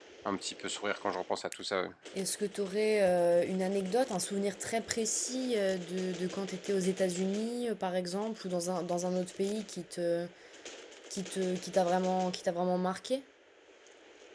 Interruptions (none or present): none